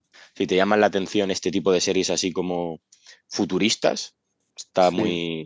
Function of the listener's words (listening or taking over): listening